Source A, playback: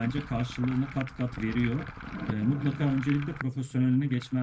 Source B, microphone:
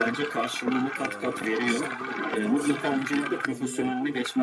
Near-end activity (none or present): present